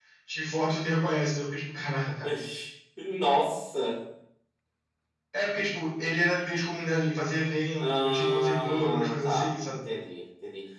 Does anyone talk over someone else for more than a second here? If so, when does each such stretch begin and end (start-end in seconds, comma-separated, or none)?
7.8-9.8